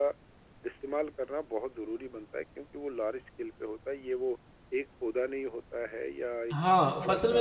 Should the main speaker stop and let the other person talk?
Yes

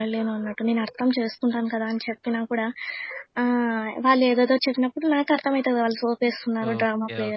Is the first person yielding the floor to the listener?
Yes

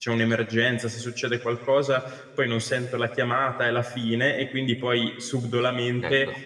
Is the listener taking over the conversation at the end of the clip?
No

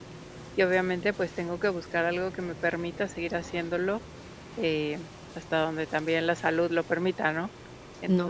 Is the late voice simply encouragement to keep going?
No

